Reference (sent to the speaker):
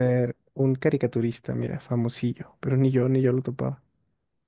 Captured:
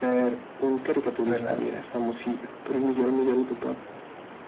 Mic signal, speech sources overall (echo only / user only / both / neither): both